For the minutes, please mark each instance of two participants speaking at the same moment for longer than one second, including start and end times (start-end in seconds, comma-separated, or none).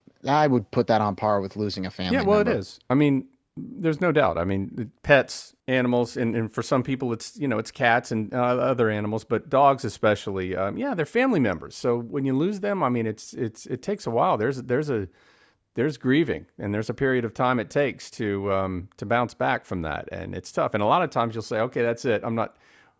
none